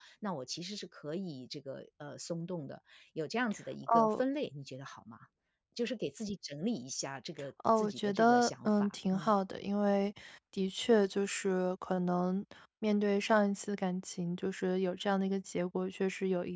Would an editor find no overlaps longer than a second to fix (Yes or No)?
No